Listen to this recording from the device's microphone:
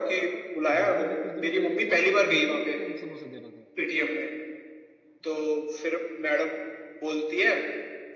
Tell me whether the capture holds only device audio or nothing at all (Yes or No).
No